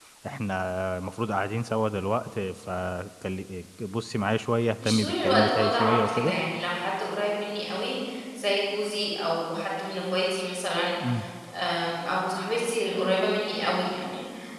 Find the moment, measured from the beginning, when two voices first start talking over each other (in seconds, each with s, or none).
4.8 s